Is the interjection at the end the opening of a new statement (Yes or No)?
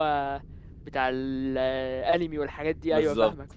Yes